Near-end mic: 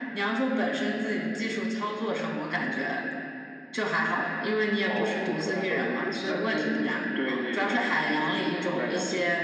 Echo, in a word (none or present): present